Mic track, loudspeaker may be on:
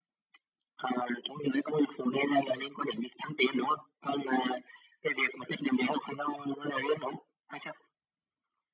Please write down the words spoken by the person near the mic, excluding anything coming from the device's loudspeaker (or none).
none